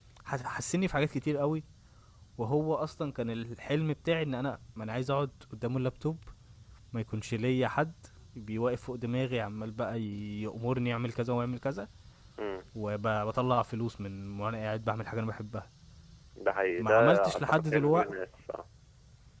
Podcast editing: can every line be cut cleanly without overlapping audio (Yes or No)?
No